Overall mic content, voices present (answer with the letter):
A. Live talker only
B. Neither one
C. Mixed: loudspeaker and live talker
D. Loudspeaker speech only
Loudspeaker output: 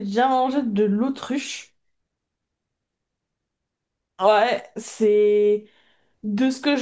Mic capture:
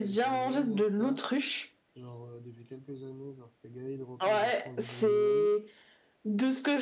C